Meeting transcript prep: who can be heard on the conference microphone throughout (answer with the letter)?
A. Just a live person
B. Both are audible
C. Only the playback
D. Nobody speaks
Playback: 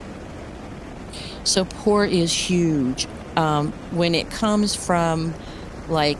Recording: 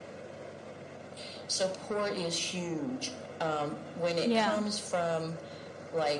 B